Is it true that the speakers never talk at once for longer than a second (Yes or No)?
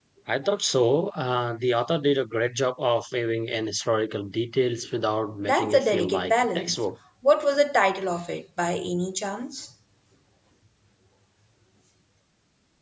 No